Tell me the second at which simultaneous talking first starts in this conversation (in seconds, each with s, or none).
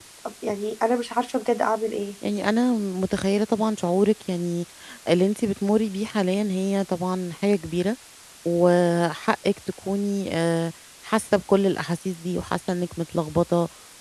none